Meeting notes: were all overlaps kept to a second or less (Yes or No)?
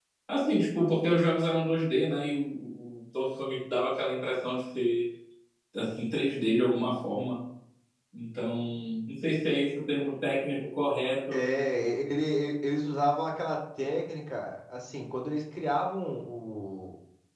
Yes